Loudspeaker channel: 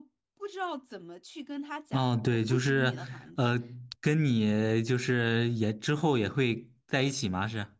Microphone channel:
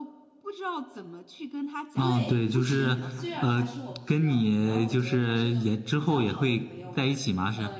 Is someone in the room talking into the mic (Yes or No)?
Yes